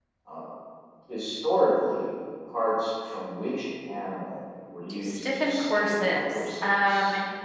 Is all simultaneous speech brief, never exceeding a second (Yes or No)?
No